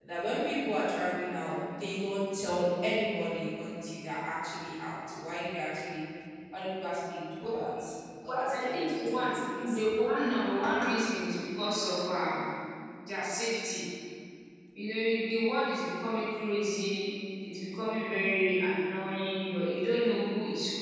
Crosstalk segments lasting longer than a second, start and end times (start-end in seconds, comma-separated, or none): 8.2-9.8